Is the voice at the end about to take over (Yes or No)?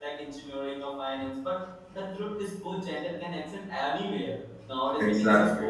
No